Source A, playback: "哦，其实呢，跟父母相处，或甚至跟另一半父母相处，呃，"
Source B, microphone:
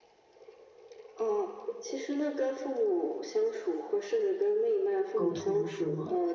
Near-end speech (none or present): present